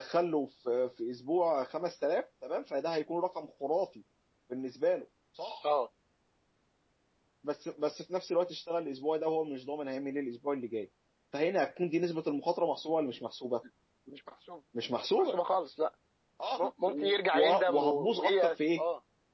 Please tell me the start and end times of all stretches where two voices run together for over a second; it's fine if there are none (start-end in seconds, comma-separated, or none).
17.3-18.8